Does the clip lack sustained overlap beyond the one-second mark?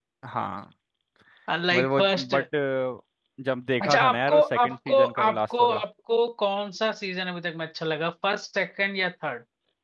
No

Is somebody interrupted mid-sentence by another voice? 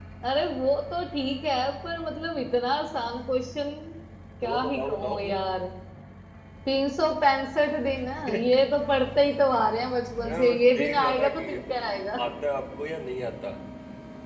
Yes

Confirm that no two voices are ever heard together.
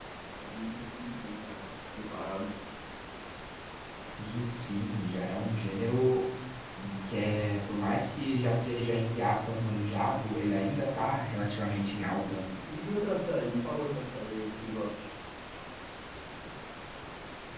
Yes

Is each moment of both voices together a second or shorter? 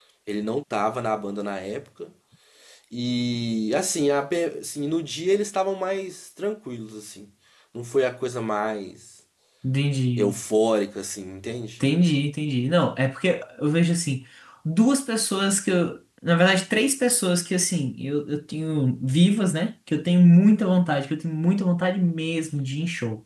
Yes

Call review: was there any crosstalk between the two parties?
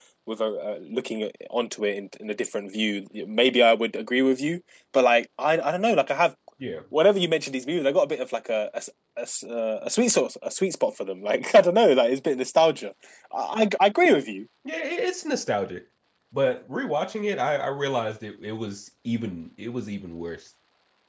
No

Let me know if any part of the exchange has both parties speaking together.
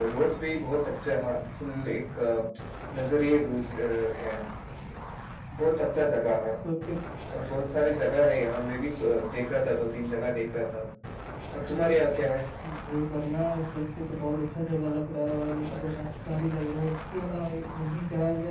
No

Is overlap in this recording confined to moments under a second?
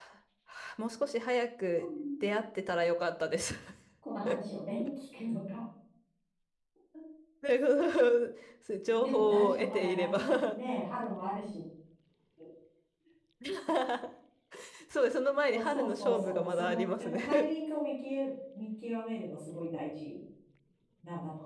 No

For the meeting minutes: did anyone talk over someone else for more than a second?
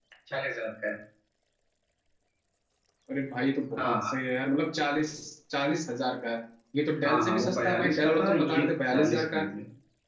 Yes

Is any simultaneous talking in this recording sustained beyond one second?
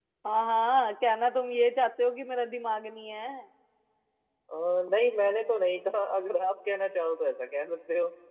No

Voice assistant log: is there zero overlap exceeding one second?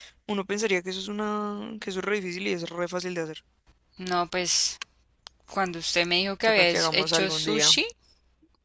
No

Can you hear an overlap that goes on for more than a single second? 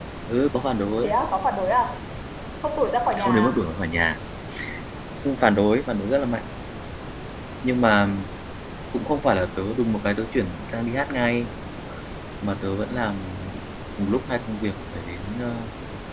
No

